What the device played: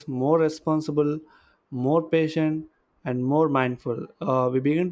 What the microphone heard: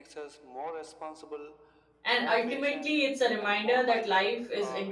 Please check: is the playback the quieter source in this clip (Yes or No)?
Yes